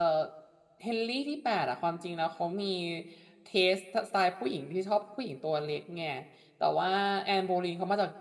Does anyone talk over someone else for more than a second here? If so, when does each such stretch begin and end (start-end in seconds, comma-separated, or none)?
none